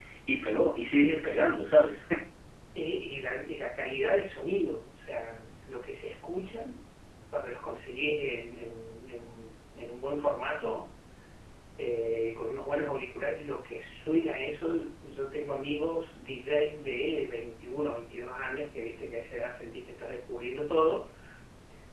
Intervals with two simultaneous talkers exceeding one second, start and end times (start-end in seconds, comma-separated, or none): none